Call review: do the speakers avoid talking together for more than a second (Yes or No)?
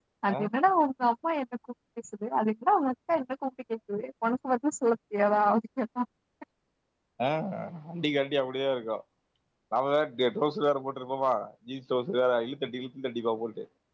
Yes